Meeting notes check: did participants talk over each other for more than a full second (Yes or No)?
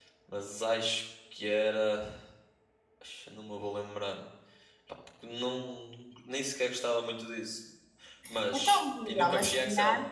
Yes